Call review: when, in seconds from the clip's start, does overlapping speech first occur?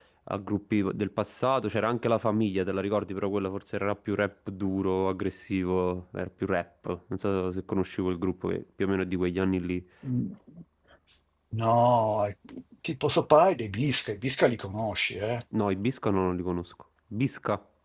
none

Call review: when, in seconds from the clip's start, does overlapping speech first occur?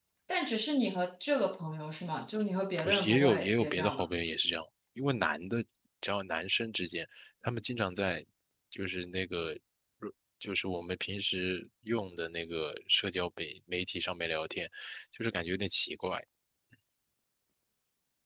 3 s

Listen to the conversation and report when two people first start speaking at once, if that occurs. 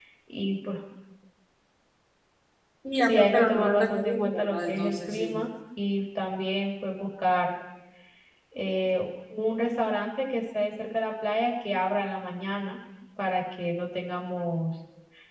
3 s

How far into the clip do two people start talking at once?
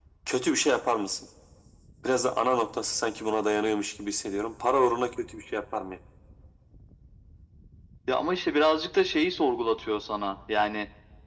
none

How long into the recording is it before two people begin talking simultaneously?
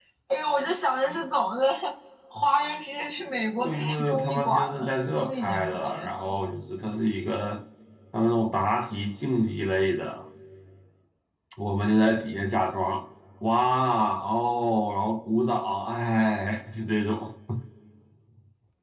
4 s

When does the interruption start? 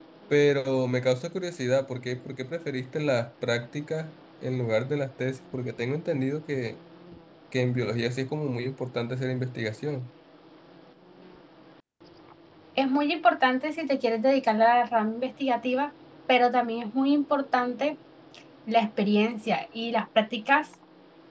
none

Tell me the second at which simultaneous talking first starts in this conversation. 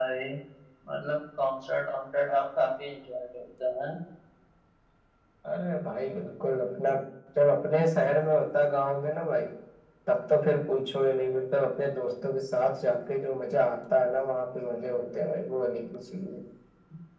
none

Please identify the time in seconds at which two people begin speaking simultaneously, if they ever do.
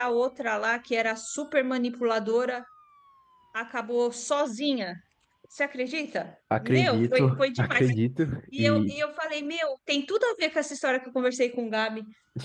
7 s

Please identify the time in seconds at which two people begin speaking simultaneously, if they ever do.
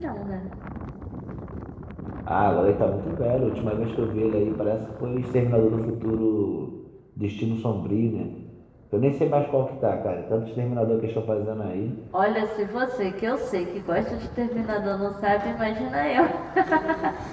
none

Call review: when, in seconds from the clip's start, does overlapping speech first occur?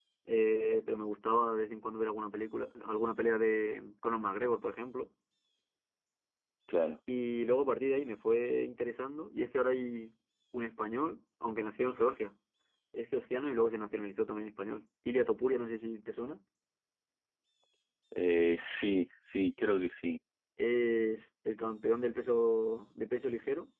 none

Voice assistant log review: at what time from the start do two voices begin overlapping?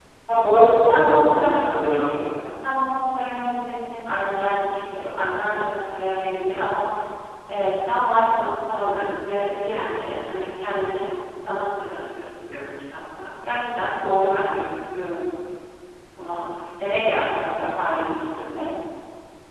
1 s

